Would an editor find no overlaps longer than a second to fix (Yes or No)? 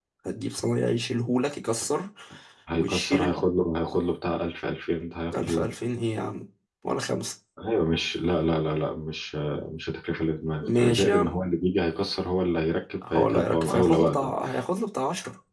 No